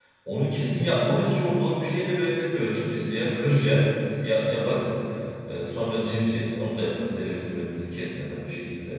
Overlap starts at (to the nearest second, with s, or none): none